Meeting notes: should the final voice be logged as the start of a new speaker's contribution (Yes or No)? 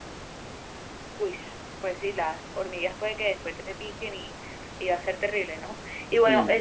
No